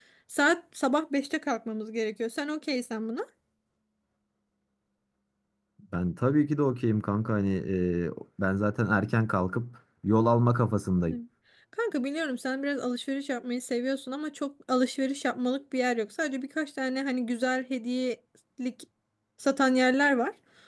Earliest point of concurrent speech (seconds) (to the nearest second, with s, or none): none